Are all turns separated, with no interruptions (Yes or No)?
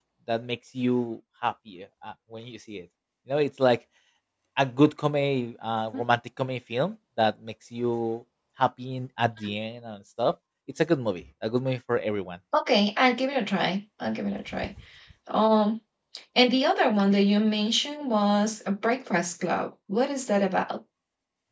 Yes